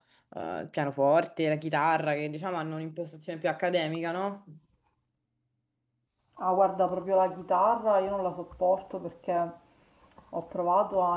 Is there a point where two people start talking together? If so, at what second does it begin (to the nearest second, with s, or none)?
none